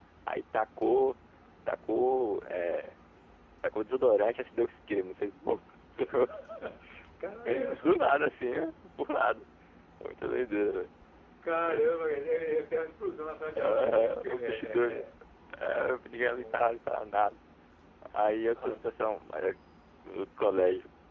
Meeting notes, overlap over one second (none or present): present